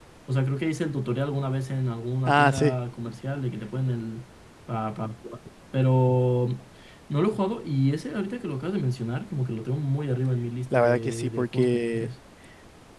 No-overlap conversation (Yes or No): No